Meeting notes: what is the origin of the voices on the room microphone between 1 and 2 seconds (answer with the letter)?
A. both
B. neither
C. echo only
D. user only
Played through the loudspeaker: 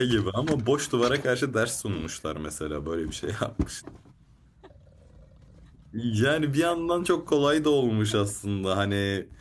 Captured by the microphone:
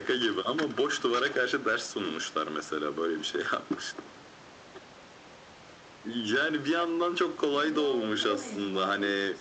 C